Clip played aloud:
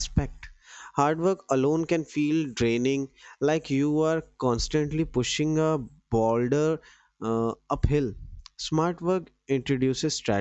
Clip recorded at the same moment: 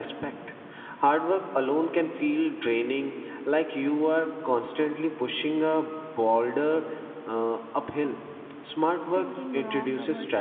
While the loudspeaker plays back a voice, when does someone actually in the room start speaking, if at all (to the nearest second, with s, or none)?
9 s